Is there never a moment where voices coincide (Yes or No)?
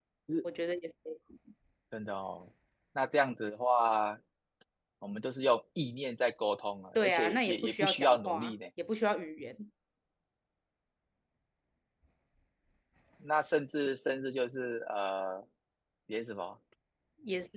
No